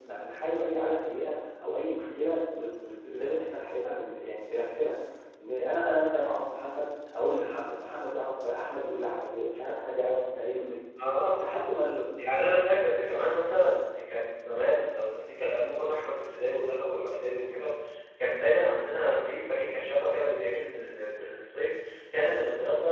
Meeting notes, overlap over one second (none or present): none